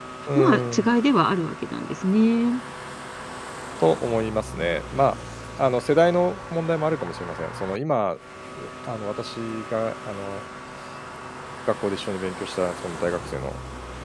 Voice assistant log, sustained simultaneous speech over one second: none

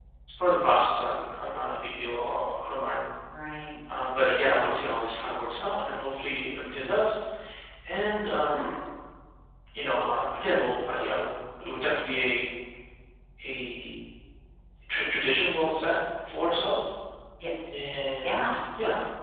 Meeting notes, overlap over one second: none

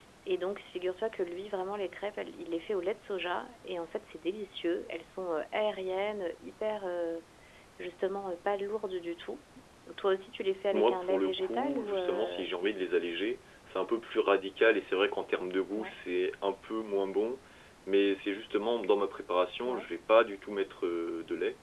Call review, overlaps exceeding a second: present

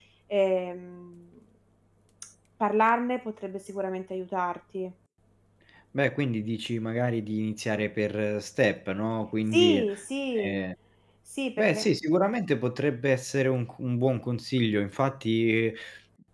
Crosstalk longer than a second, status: none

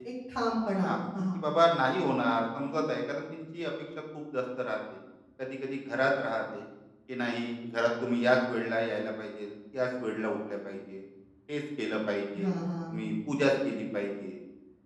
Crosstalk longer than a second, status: none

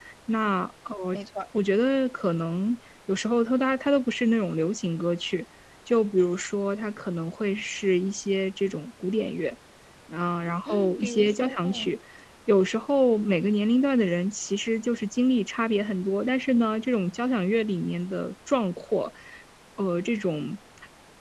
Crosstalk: present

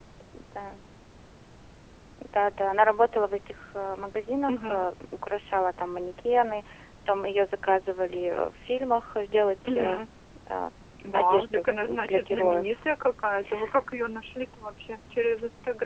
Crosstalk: present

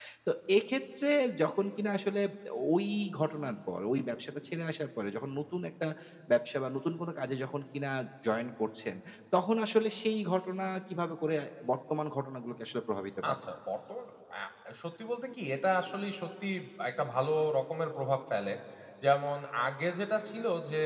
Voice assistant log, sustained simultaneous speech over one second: none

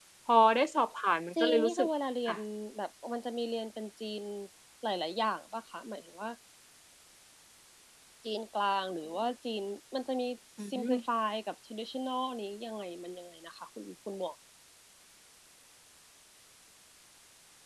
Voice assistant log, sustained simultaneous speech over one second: none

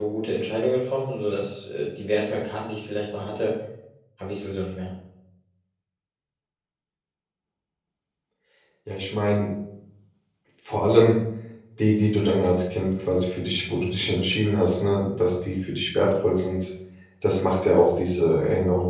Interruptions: none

